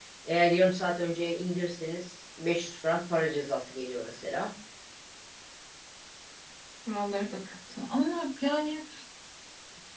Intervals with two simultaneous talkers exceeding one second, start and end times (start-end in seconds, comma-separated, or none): none